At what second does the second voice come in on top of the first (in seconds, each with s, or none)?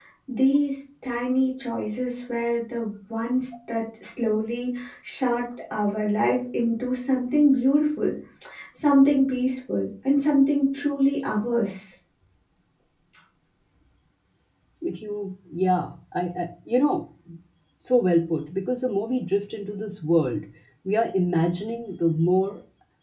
none